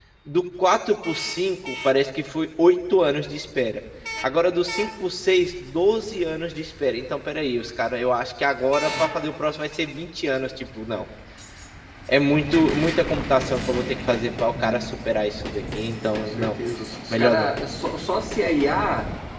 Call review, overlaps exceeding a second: none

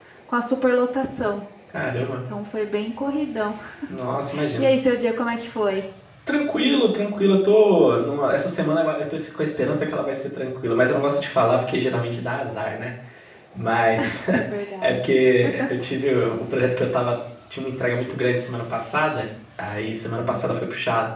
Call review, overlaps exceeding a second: none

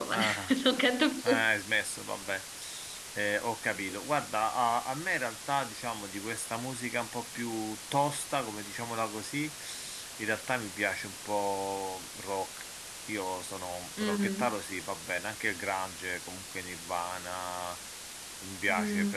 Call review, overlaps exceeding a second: none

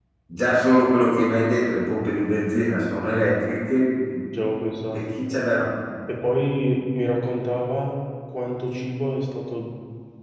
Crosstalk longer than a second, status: none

